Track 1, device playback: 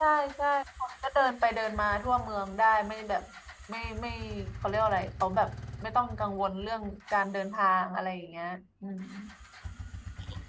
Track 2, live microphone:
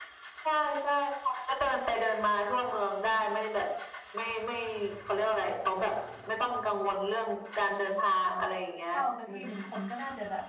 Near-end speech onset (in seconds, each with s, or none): 8.9 s